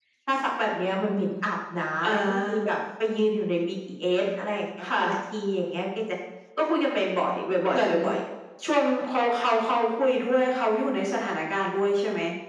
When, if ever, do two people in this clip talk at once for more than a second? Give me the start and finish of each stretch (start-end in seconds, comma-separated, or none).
none